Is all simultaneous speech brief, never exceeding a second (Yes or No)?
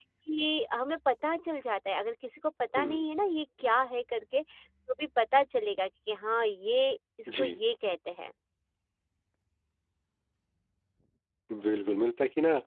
Yes